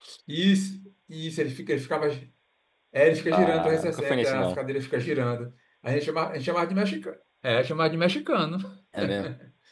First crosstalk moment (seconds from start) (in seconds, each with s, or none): 3.3 s